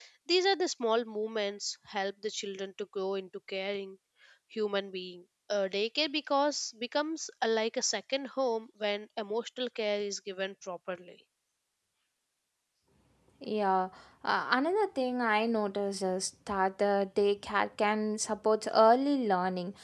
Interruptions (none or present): none